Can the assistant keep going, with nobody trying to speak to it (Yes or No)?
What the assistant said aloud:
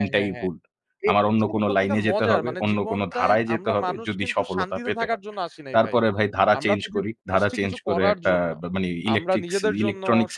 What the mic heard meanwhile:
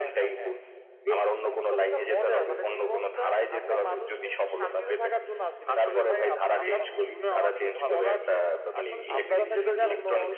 No